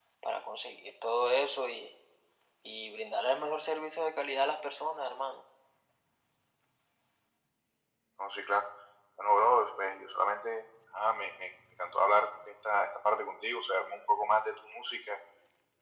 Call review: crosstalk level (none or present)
none